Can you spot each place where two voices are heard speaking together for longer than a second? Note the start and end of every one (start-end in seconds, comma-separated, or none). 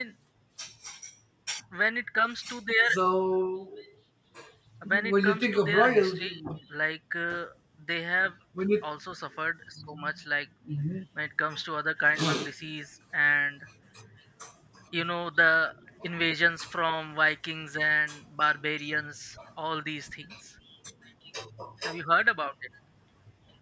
4.9-6.3